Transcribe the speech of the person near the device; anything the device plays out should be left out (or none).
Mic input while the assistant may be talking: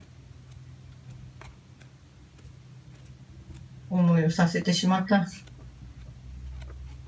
思いをさせてしまった。